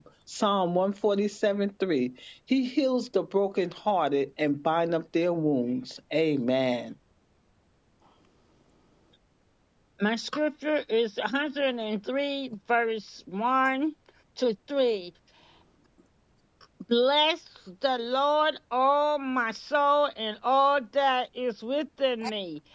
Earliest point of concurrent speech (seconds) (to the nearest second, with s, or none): none